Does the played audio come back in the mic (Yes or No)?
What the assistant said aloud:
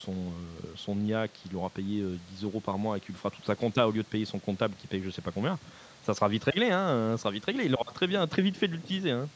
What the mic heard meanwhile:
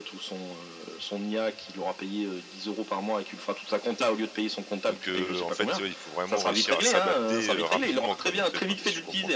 Yes